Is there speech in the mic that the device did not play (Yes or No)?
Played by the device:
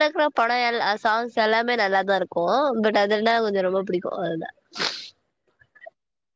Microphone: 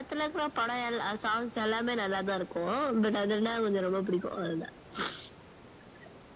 No